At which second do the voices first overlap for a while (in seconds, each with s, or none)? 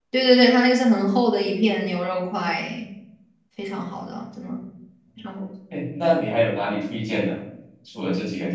none